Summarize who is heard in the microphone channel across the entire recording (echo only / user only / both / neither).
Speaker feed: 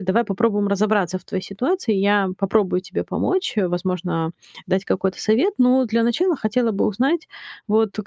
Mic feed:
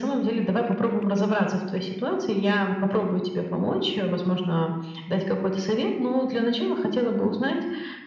echo only